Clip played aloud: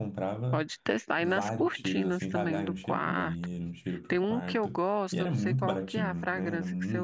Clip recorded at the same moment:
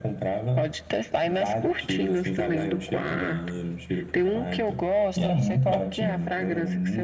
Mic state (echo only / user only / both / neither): echo only